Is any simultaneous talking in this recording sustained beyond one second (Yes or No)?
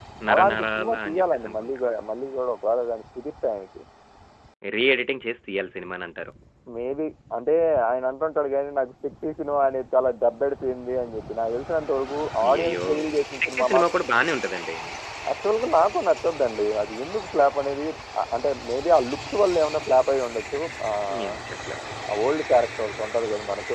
Yes